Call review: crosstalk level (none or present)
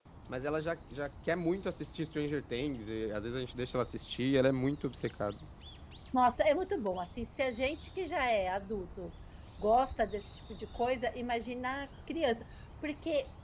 none